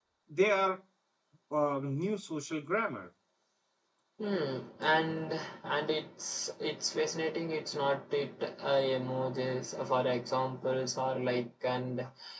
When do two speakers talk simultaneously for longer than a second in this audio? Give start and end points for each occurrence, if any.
none

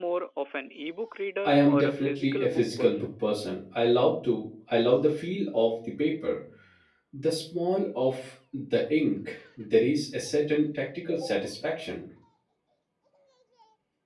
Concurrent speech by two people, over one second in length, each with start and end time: 1.4-3.1

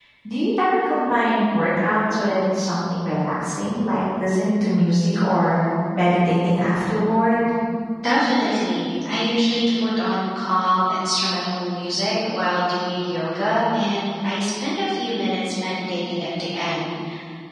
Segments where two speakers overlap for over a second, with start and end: none

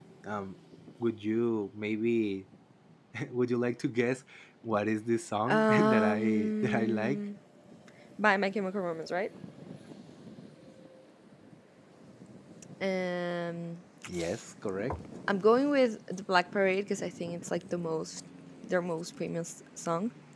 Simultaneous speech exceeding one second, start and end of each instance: 5.5-7.2

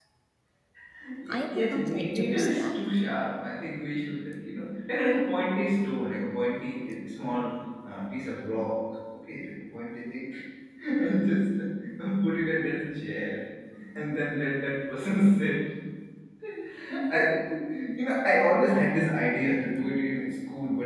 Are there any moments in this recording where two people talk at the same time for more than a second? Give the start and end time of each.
1.3-2.8

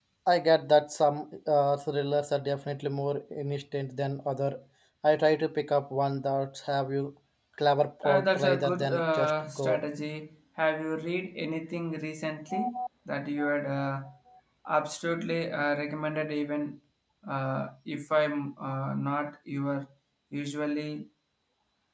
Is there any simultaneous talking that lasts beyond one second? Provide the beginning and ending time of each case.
8.0-9.8

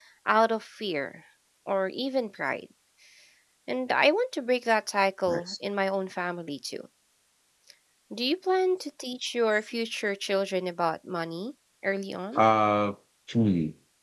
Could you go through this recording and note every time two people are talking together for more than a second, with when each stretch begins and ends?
none

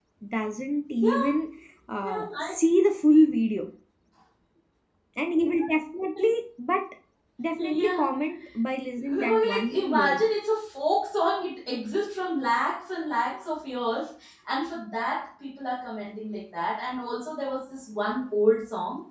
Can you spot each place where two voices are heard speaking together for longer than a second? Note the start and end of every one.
9.0-10.2

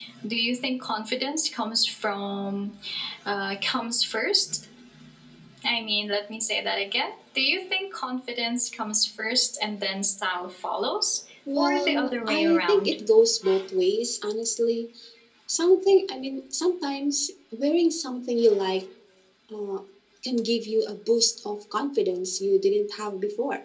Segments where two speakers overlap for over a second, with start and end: 11.6-12.9

